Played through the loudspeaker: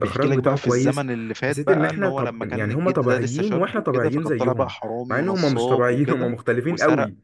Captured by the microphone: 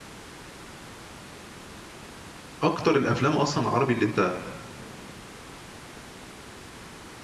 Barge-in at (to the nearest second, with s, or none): 3 s